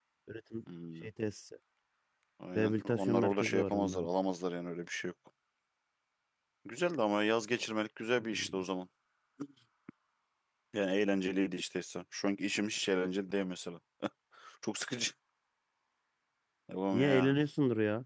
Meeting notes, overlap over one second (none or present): present